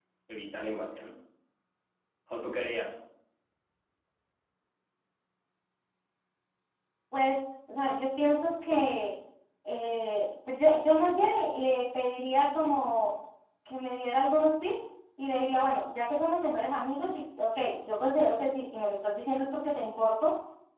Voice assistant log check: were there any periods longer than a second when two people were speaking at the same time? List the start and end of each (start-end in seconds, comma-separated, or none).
none